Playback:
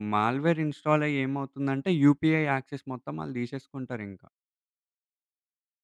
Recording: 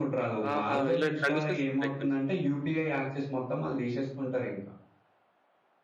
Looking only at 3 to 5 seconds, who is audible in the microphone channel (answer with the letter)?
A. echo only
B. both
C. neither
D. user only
A